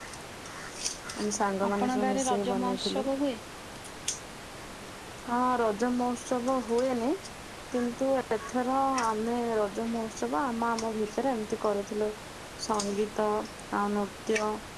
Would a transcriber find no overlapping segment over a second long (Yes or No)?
No